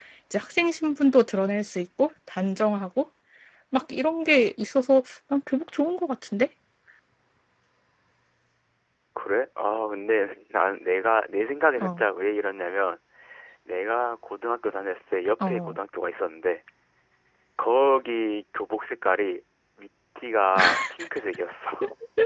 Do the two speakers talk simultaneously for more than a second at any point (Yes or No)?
No